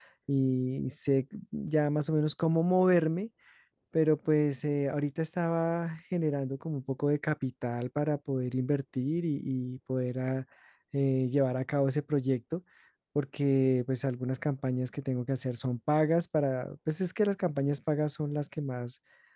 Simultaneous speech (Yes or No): No